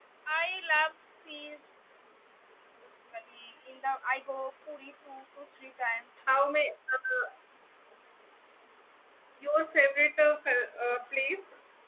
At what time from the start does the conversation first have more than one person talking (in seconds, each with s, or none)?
none